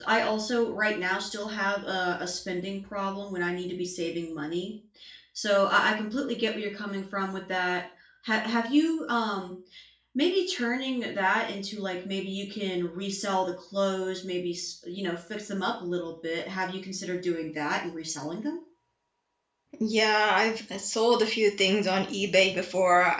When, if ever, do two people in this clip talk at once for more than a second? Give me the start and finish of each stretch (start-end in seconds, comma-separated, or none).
none